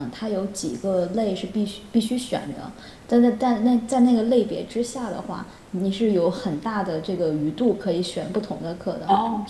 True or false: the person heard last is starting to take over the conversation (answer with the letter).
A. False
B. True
A